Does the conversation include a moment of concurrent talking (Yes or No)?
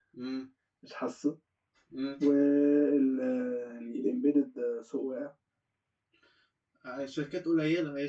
No